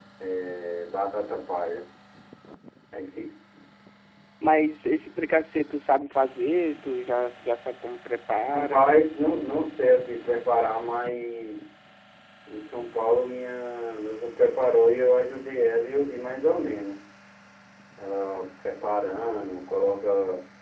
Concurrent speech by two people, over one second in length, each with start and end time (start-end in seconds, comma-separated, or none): none